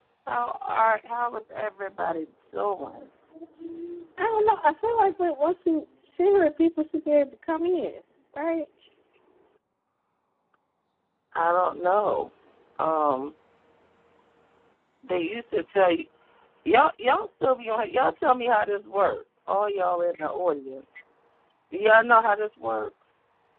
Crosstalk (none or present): none